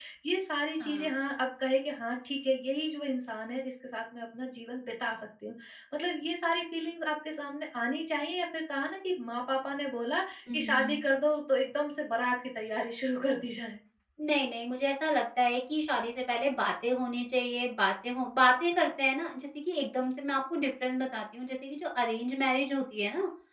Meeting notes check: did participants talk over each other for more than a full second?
No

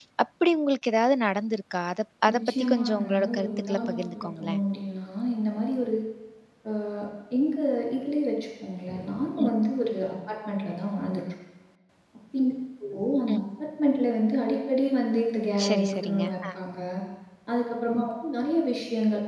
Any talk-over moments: Yes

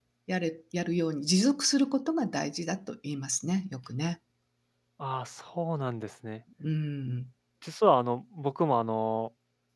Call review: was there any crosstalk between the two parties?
No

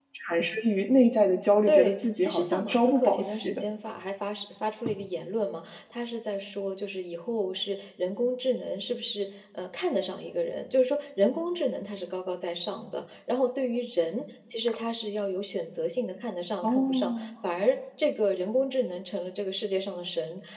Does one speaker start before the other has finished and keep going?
Yes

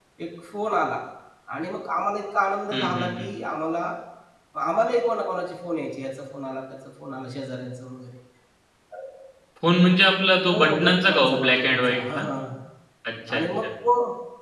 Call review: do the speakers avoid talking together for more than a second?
No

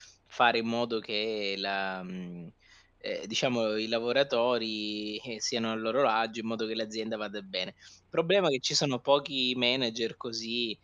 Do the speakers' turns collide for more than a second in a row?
No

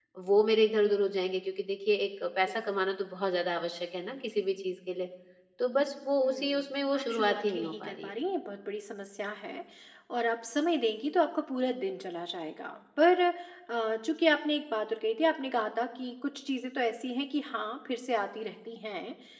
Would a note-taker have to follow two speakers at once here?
Yes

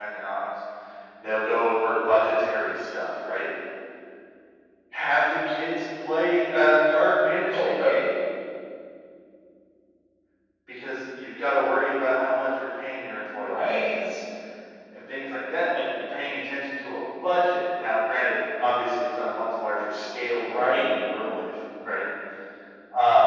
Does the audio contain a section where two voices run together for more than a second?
No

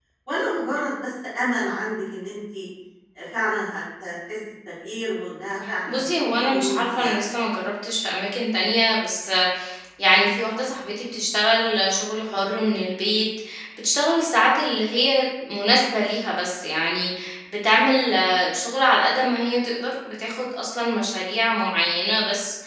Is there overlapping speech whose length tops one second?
Yes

